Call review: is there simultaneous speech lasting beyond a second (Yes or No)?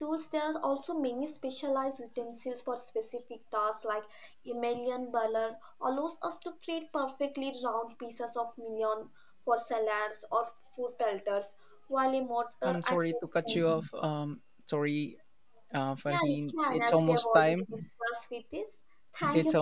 Yes